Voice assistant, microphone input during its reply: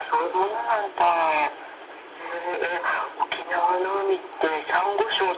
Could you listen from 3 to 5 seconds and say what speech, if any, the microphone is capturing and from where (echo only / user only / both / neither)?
echo only